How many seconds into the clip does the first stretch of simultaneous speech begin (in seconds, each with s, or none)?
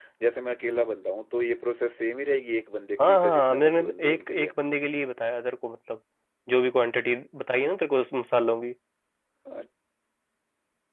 3.0 s